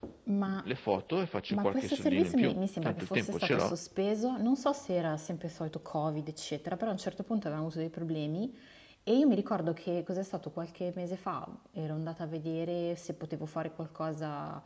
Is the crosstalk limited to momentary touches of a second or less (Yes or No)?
No